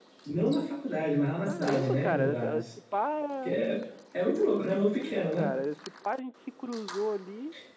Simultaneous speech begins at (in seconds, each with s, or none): 1.4 s